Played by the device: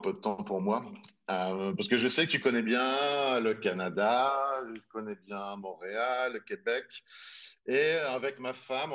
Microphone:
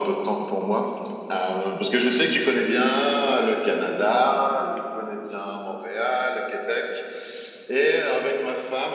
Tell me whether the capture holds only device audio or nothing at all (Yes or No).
Yes